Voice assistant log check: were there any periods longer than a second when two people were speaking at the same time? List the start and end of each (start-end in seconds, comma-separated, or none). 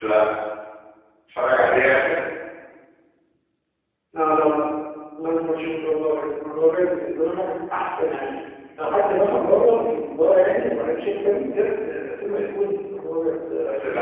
none